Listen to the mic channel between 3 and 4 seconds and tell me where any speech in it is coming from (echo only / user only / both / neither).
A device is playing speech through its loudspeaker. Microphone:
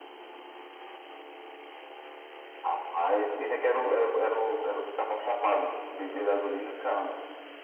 echo only